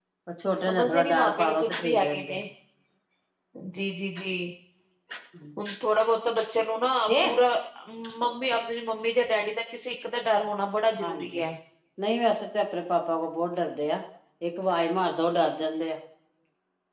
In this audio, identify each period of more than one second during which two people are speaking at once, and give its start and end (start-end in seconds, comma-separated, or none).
0.6-2.4